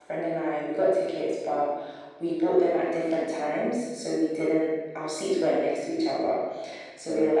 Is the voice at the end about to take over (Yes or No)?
No